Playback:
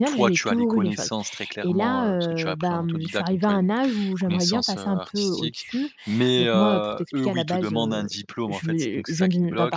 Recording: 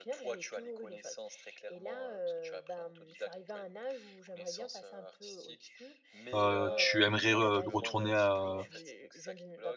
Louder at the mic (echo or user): user